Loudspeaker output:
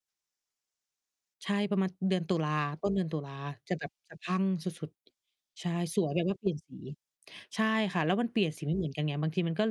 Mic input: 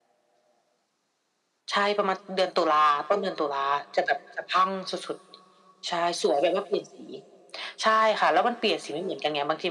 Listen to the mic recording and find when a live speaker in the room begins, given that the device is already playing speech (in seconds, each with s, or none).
none